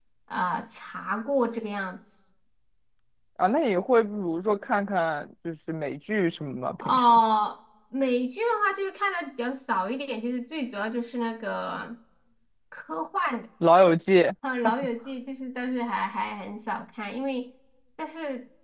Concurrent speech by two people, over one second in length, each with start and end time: none

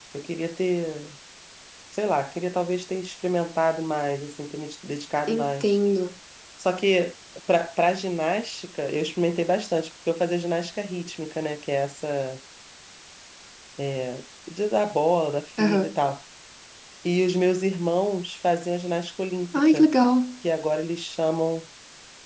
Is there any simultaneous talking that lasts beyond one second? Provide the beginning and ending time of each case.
none

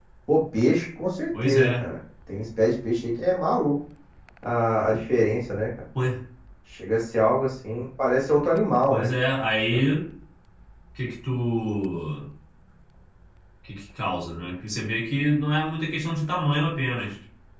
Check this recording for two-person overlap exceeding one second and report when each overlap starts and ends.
none

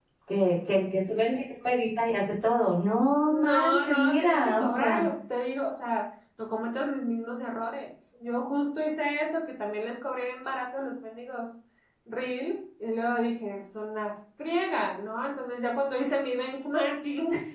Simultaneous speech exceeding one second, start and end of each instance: 3.2-5.0

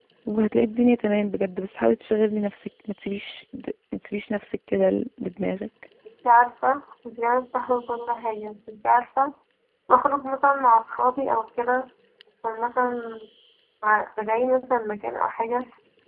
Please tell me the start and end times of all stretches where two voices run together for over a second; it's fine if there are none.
none

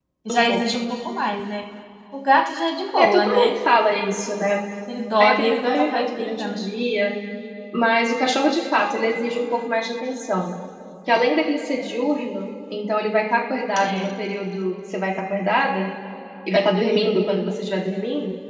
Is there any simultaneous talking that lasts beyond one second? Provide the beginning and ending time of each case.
5.2-6.6

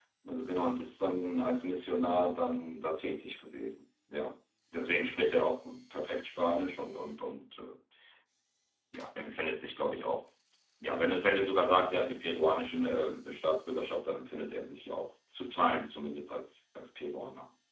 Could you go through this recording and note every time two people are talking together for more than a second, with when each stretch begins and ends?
none

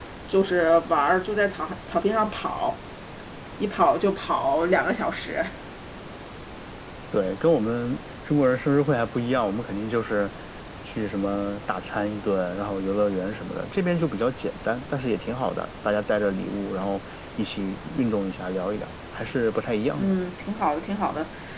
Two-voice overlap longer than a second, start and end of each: none

